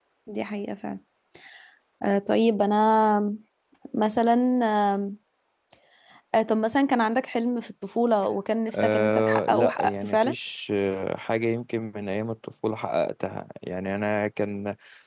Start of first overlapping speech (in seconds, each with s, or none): 8.7 s